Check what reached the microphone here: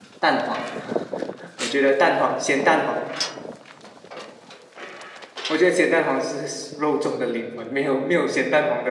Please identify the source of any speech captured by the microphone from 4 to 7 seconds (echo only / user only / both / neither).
user only